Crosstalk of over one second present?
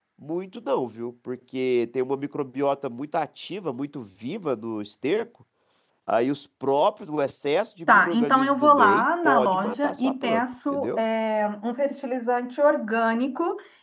Yes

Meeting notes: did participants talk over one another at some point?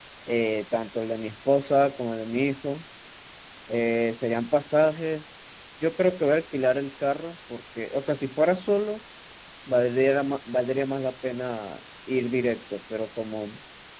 No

